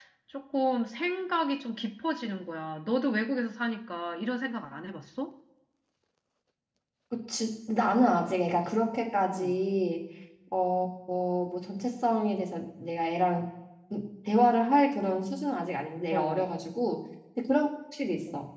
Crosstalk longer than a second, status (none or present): none